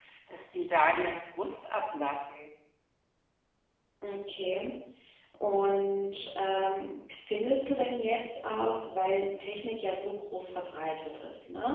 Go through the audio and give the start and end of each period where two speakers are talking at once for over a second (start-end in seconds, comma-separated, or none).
none